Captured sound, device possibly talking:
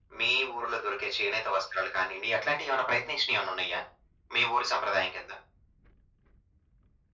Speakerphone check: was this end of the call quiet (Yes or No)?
Yes